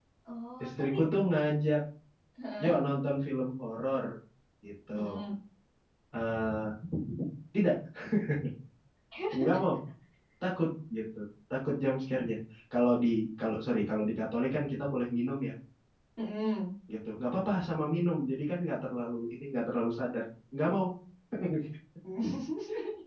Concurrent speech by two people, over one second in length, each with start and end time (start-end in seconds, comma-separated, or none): none